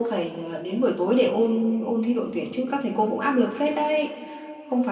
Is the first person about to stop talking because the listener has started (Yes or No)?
No